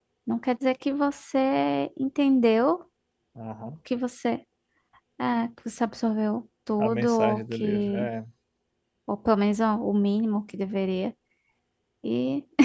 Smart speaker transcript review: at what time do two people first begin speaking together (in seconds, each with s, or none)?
6.8 s